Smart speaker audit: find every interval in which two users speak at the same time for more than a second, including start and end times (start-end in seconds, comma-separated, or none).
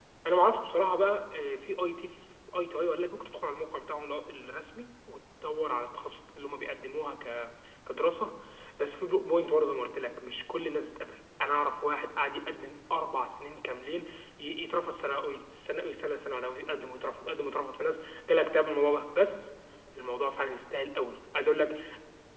none